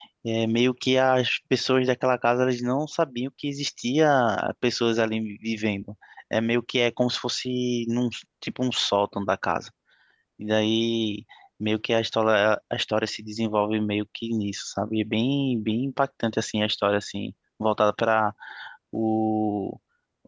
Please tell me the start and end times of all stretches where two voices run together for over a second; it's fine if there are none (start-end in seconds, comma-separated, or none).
none